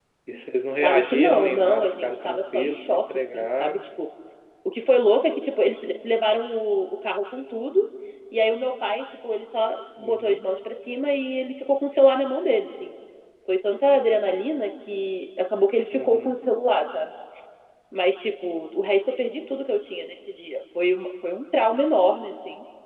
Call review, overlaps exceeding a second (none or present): present